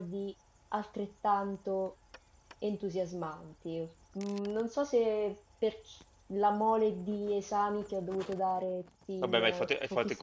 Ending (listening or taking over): taking over